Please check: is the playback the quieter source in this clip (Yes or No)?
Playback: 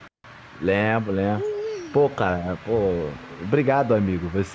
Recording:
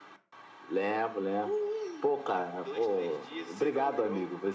No